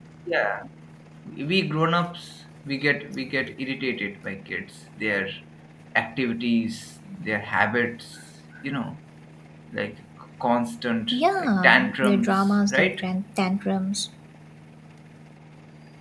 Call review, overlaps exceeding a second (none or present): present